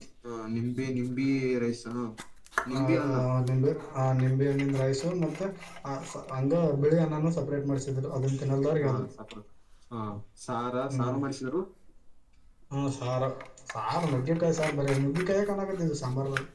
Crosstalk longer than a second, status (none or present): none